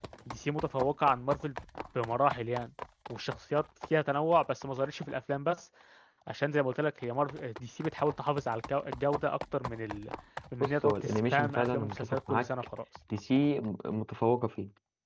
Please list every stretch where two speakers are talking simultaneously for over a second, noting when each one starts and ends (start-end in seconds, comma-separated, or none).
10.6-12.5